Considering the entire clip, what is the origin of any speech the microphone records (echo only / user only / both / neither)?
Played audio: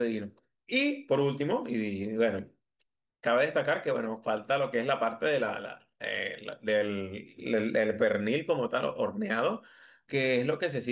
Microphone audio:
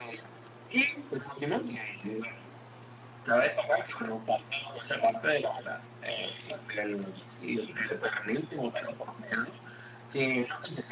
echo only